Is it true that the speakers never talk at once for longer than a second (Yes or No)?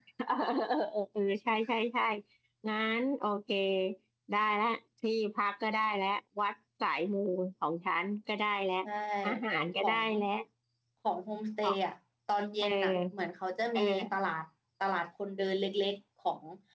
Yes